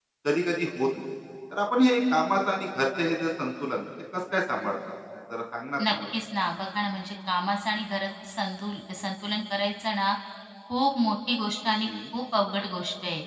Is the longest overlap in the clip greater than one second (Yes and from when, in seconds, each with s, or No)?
No